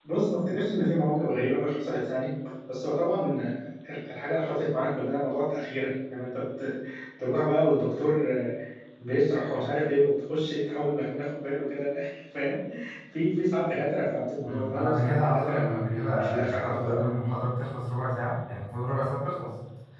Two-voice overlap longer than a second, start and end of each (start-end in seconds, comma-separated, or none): 14.4-17.0